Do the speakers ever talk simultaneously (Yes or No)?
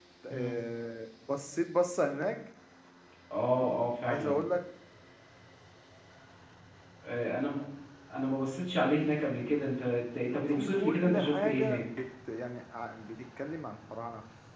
Yes